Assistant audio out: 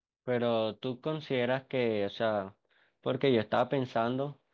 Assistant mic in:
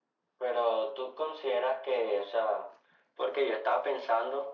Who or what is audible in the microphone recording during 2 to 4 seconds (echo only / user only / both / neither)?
echo only